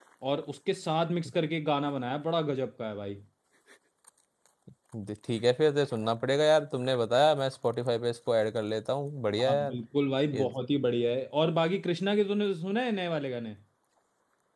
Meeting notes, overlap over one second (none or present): none